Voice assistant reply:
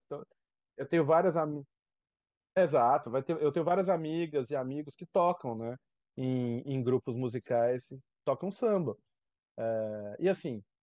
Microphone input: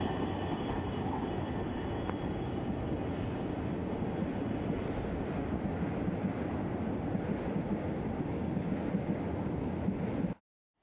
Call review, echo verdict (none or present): none